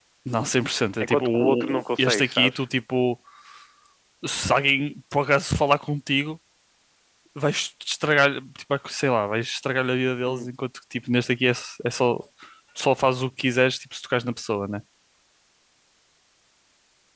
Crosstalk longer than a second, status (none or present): present